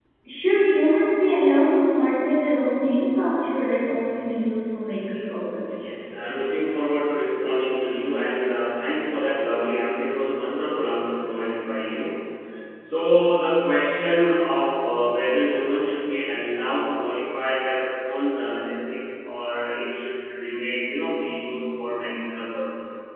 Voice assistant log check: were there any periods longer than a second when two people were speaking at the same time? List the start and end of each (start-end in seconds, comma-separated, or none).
none